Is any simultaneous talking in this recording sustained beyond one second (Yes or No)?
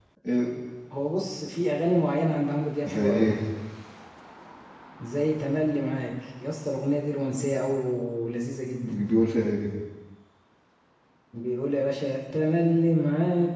No